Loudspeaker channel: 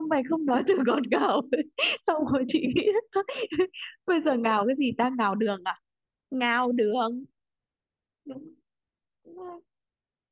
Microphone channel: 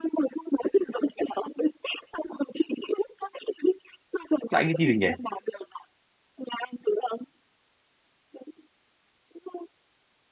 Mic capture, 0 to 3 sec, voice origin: echo only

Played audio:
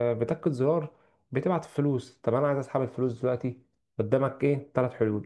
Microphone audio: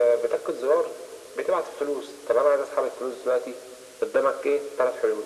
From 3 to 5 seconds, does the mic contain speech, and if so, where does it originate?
echo only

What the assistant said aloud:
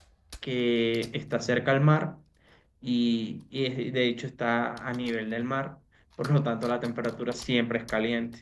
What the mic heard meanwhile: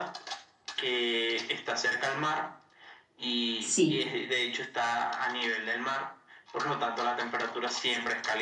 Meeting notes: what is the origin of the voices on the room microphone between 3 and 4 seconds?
both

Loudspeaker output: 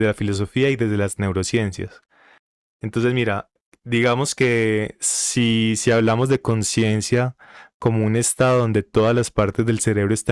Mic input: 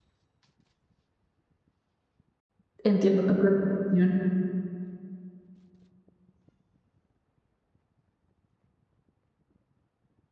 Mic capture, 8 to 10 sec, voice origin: neither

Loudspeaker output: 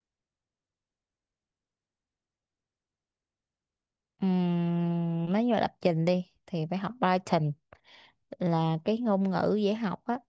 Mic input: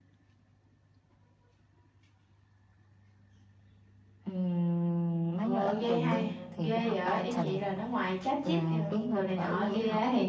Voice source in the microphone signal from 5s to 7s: both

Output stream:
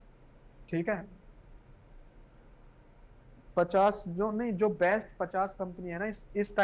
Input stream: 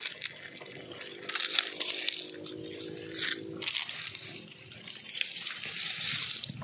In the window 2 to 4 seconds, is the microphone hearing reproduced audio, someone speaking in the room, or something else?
neither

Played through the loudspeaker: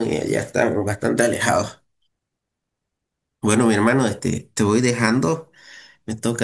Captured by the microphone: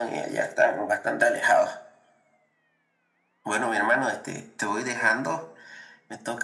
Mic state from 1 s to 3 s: echo only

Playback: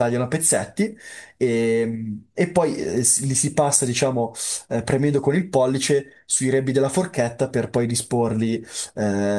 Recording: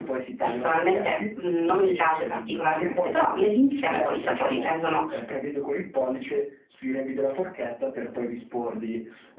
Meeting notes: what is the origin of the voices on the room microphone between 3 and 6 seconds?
both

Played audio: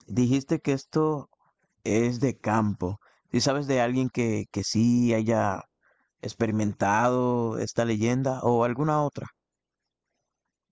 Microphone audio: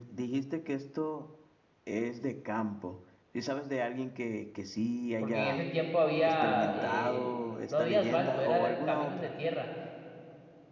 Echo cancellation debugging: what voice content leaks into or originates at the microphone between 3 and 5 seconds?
echo only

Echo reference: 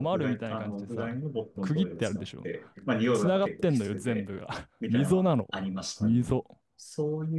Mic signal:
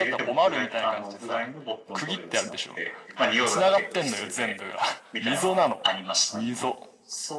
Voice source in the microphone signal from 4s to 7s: echo only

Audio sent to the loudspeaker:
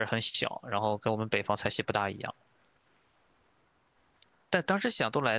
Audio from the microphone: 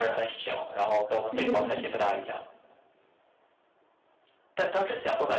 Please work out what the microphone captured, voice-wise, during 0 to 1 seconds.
echo only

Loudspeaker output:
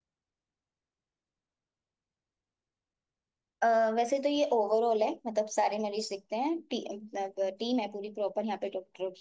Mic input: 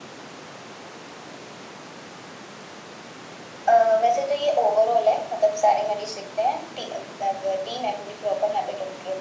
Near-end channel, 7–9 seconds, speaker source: echo only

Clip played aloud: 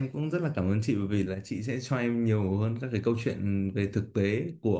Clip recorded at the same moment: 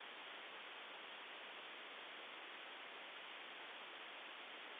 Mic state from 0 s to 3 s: neither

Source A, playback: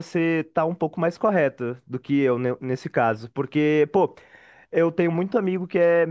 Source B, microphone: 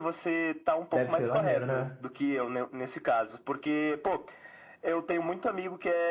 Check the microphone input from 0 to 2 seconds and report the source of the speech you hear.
both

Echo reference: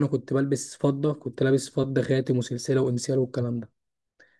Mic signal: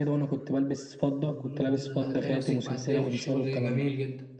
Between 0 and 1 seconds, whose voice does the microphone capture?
echo only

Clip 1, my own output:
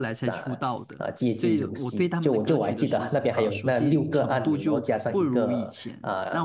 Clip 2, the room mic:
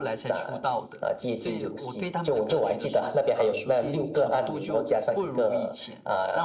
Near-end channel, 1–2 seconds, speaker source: echo only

